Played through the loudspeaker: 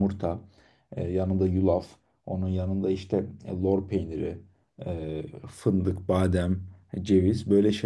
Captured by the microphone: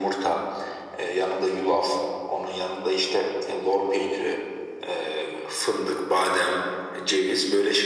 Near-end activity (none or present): none